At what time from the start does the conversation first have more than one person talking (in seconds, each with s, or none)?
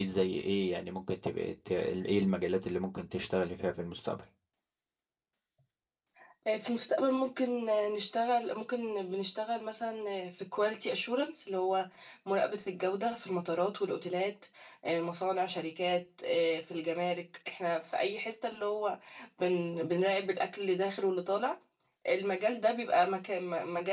none